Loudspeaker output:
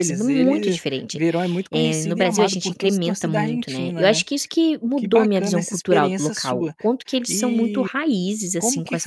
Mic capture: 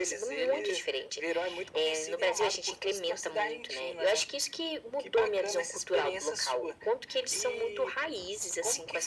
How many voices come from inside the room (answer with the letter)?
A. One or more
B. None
B